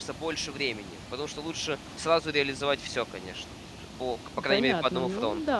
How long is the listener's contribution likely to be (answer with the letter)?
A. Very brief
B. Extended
B